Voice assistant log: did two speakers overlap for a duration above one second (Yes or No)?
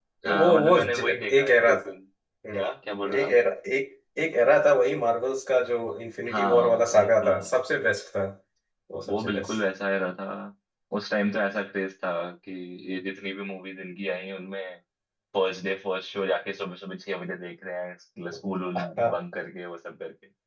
Yes